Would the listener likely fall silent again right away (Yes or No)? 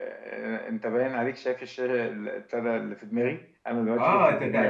No